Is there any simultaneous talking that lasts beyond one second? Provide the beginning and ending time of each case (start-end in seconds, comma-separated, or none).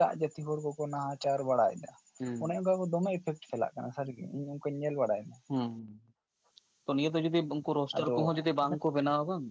none